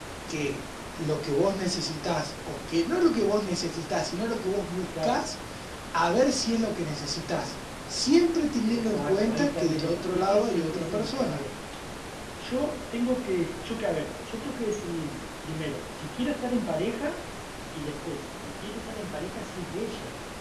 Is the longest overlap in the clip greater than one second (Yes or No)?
Yes